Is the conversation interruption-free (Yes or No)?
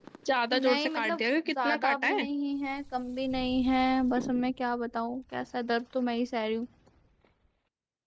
No